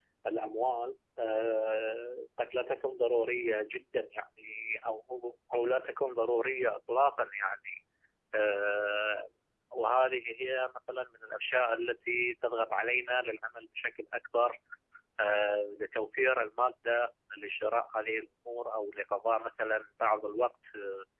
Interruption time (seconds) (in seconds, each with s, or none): none